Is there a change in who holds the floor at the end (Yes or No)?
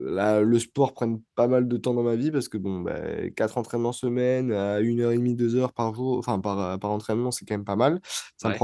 No